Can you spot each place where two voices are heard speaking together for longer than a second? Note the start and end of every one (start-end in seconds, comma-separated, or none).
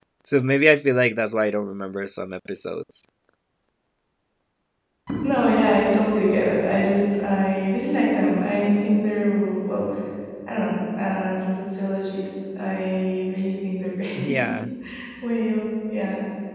none